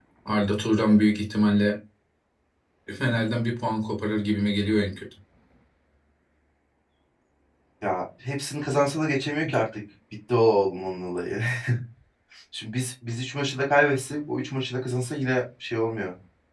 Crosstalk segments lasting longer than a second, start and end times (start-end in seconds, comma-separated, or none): none